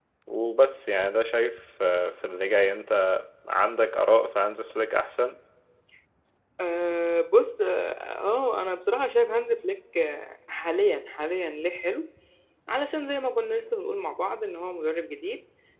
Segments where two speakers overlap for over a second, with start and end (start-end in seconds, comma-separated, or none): none